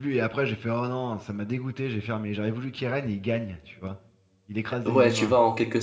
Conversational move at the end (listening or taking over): taking over